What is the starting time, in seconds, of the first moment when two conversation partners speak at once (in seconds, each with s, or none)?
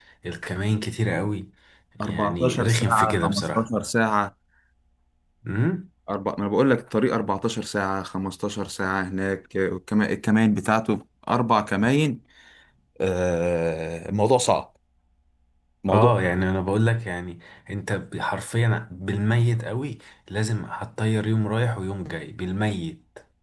2.0 s